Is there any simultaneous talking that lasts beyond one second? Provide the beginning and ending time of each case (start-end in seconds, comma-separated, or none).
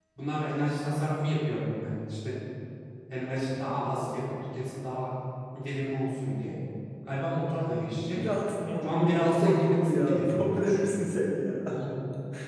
8.8-10.8